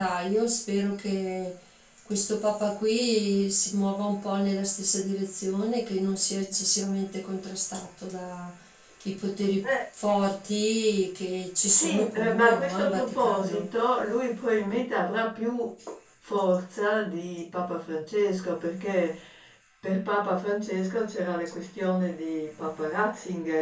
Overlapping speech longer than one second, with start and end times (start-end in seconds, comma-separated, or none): 11.6-13.7